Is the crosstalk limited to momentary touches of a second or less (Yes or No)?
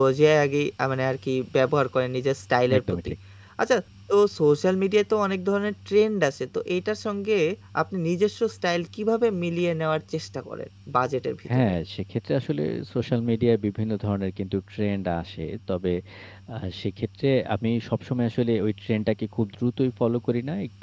Yes